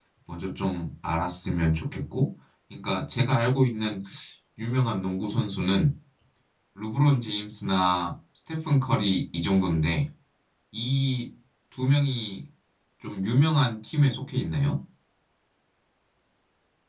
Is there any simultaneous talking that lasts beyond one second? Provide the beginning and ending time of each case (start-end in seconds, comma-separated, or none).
none